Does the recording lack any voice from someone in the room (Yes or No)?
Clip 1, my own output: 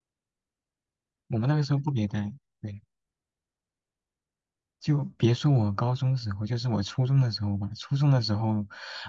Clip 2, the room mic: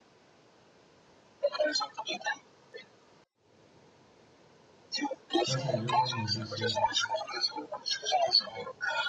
No